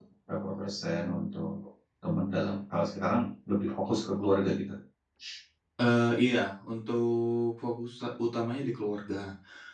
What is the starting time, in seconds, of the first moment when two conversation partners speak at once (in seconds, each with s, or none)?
none